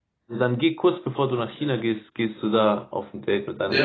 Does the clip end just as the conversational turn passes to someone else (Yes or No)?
Yes